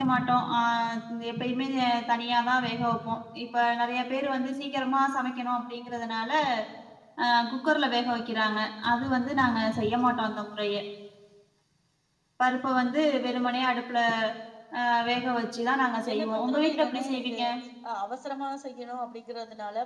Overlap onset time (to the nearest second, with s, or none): 16 s